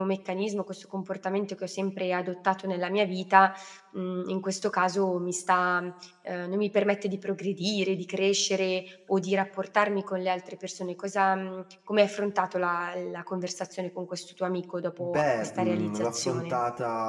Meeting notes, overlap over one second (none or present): present